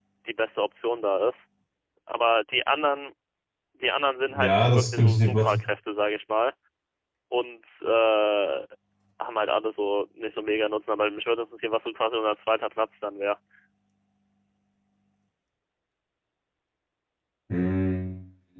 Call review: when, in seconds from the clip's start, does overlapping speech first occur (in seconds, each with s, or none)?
4.3 s